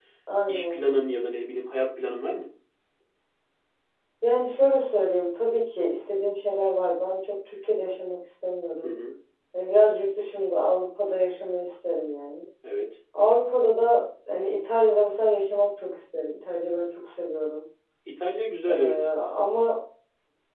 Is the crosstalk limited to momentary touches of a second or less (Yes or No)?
Yes